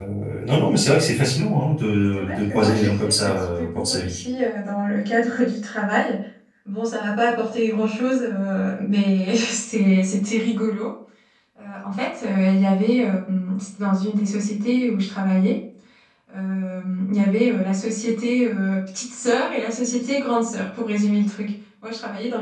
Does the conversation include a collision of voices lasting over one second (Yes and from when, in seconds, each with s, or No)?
Yes, from 2.1 s